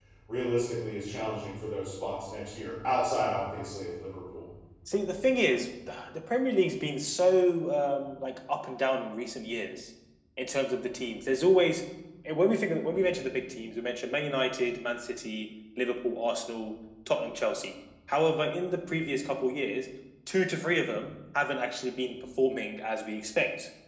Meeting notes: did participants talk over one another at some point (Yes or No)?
No